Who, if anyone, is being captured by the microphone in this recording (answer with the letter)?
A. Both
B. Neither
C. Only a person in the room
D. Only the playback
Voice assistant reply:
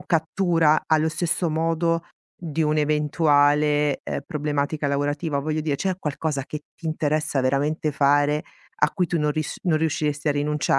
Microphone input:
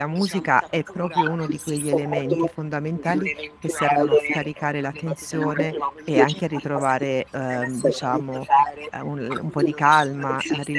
A